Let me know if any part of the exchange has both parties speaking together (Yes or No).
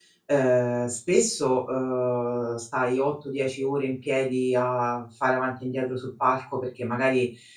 No